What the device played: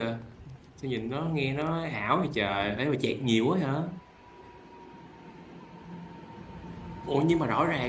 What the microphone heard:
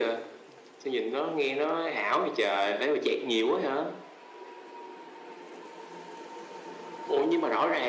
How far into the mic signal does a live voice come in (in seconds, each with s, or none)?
none